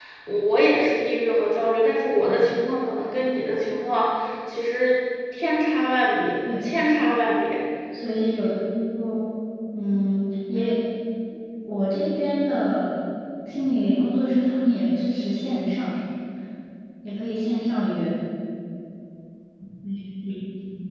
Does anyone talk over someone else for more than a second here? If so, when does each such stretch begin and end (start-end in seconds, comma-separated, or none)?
none